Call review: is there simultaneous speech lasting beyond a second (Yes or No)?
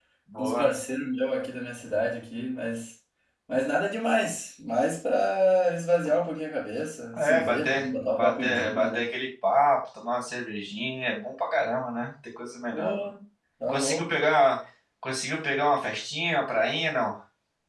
Yes